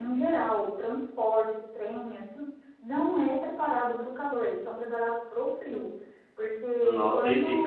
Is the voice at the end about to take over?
Yes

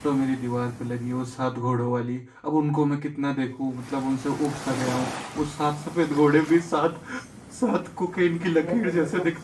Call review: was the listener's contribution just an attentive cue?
No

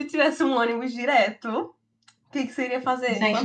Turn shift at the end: Yes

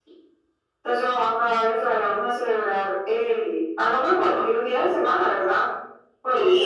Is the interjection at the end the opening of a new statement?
Yes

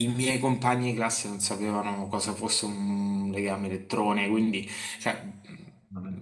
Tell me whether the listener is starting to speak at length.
No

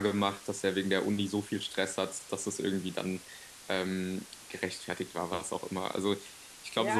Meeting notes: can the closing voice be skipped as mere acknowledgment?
No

